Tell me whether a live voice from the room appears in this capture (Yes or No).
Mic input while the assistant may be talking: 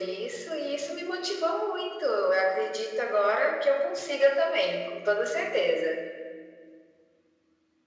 No